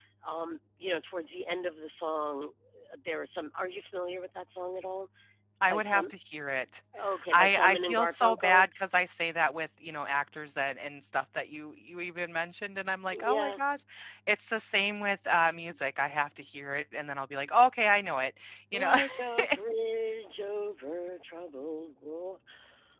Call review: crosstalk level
present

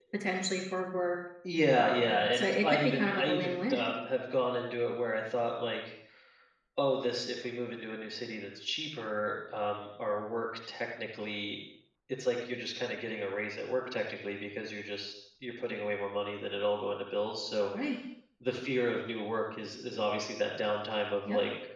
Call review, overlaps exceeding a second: present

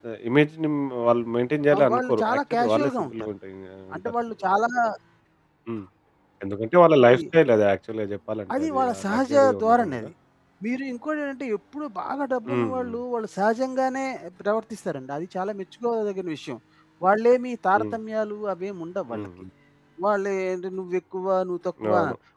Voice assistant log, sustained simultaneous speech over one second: present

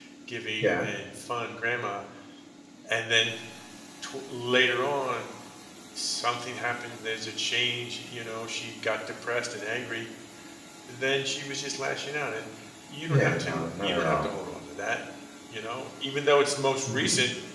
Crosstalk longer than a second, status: present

